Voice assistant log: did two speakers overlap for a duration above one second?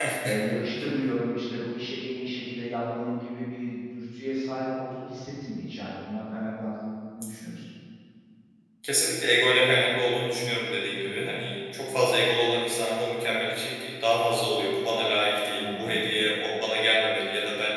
No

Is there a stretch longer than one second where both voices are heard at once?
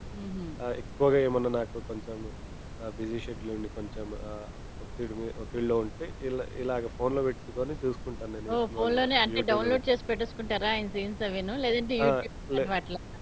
Yes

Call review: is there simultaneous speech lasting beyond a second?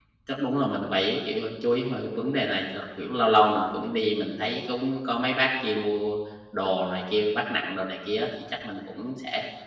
No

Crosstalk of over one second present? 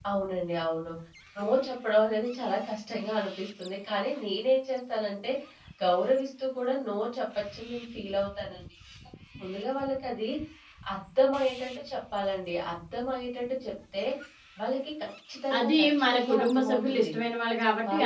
Yes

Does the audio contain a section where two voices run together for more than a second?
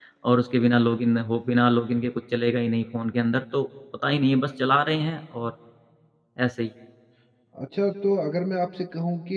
No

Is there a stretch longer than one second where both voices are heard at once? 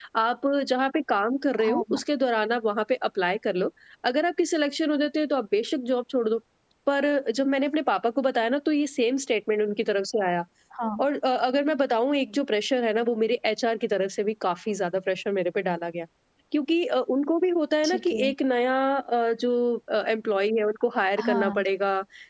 No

